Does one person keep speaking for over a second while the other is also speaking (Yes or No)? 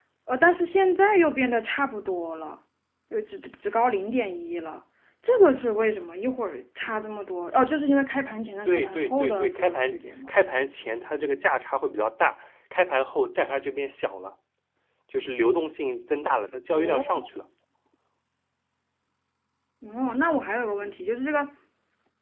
Yes